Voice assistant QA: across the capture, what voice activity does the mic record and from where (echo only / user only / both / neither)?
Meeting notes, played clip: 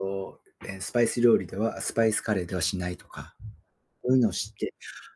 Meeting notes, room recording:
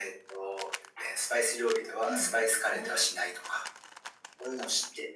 both